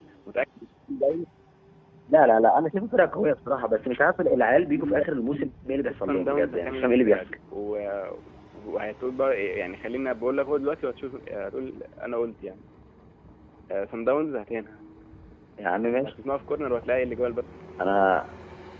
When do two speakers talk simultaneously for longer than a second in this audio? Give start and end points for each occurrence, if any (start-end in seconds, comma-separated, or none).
6.0-7.3